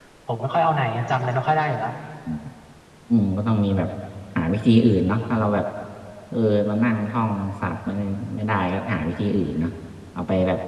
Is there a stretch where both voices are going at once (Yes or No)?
No